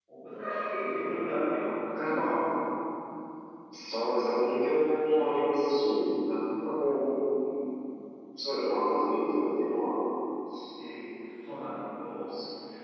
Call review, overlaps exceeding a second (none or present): none